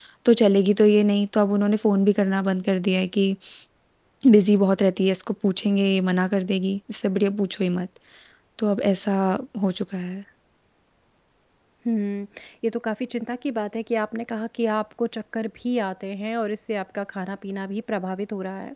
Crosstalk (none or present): none